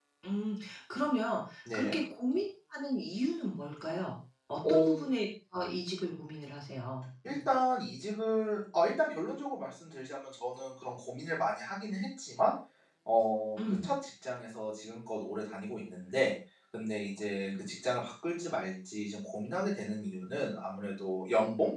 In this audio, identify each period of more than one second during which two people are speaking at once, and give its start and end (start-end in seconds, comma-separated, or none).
none